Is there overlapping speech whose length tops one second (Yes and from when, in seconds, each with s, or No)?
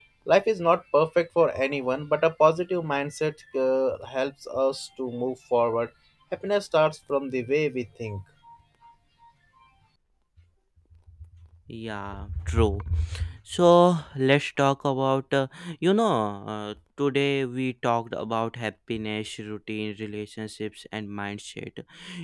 No